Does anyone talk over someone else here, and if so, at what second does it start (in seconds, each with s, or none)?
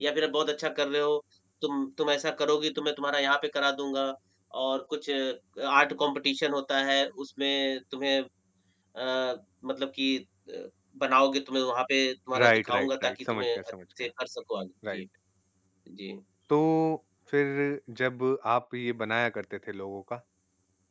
12.3 s